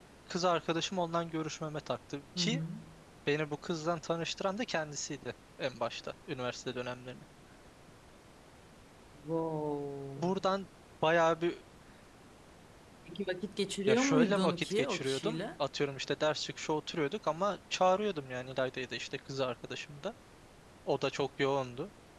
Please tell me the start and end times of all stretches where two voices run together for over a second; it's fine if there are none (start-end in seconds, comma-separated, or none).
13.9-15.4